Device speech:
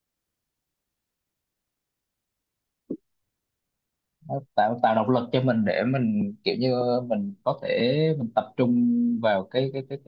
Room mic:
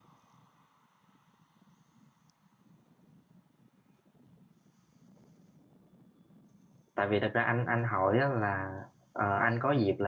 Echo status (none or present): none